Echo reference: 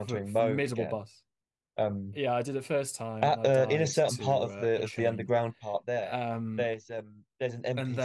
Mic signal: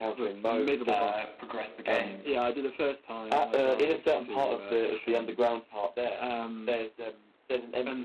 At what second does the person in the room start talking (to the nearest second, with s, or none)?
1 s